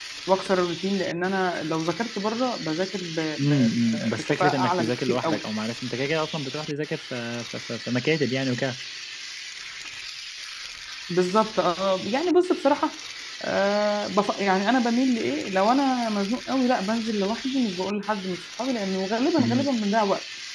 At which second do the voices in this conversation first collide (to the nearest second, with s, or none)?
3 s